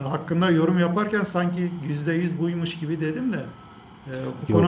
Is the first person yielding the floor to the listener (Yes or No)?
No